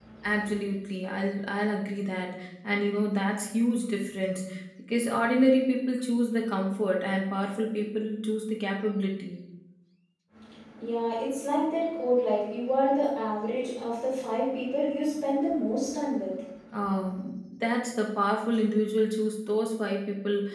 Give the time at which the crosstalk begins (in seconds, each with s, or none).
none